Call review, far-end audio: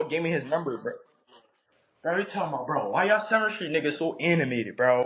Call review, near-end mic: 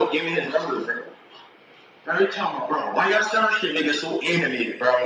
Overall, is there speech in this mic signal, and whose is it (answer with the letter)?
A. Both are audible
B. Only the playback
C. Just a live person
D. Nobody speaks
B